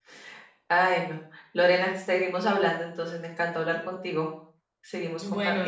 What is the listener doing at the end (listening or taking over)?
taking over